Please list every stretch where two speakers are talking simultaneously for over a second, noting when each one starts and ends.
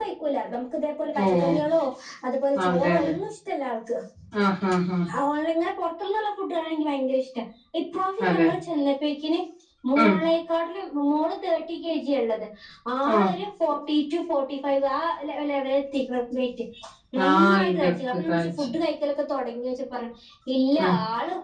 17.3-18.6

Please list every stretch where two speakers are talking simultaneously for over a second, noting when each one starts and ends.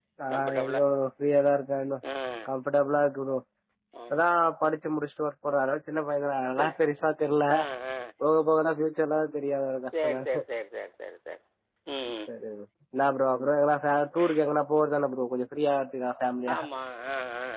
none

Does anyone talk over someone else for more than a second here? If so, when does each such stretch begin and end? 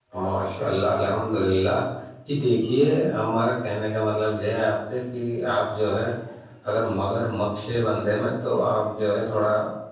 none

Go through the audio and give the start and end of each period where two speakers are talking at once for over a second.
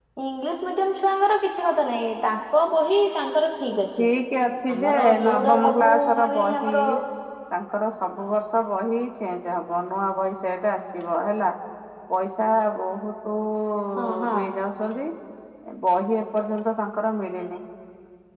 4.8-6.7

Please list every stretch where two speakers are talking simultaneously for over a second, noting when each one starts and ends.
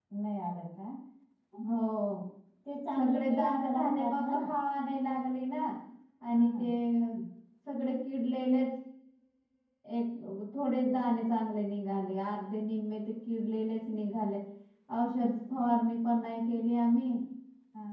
2.9-4.3

